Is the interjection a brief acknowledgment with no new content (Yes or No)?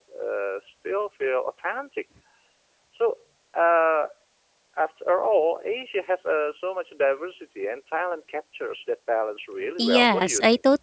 No